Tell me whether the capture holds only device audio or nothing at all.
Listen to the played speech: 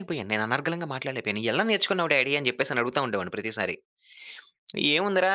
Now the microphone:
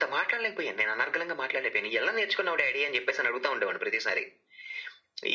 Yes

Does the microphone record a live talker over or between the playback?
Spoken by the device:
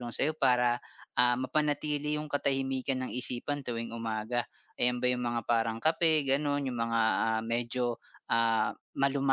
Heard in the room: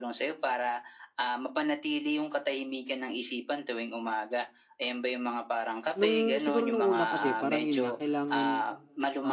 Yes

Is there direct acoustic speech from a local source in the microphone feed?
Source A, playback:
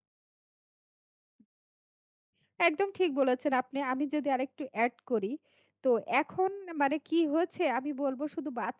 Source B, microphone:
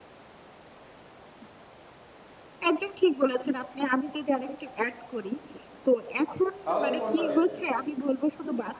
Yes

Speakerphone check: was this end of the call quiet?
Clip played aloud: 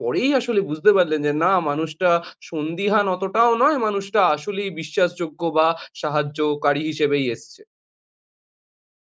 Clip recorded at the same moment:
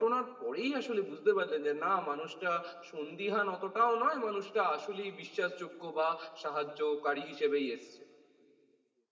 Yes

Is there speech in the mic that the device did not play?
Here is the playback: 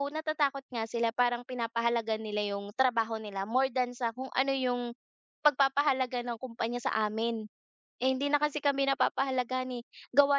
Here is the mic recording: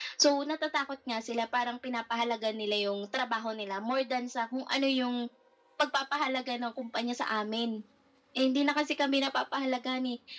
No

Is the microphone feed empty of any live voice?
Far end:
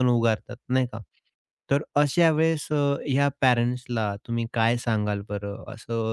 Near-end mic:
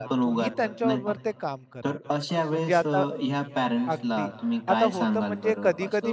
No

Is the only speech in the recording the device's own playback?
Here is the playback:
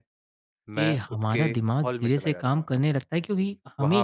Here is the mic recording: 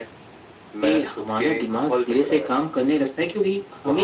Yes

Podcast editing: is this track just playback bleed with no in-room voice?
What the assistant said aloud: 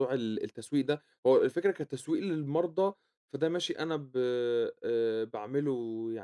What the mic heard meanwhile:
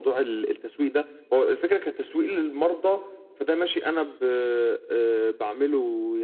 Yes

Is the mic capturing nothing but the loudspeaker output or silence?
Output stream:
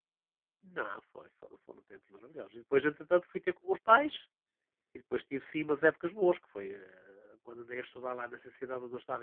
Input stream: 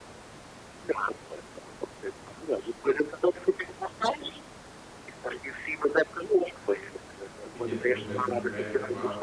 No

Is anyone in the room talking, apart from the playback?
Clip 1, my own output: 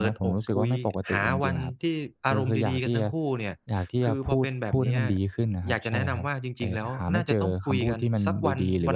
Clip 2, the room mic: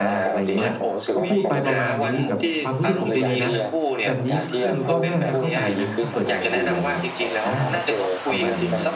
Yes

